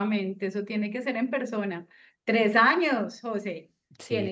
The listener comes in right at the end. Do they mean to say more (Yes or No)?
No